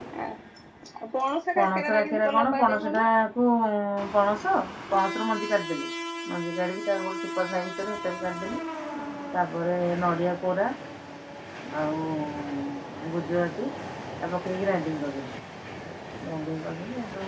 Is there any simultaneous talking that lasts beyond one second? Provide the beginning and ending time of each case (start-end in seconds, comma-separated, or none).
1.6-3.0